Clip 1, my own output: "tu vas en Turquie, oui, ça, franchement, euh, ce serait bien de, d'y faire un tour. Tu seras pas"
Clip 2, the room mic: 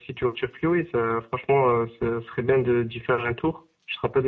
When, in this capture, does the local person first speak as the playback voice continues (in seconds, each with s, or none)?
none